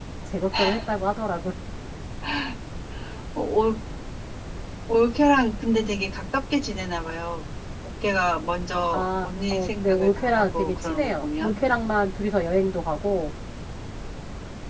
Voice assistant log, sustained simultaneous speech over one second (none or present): present